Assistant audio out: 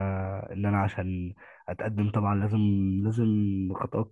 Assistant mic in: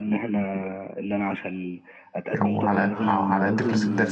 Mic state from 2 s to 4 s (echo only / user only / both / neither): both